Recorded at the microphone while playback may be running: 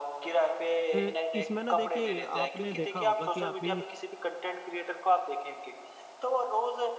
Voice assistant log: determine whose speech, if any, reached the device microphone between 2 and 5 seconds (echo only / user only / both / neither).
both